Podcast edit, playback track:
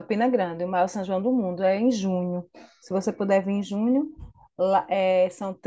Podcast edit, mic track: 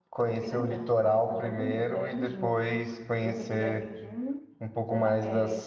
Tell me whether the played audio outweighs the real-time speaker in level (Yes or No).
No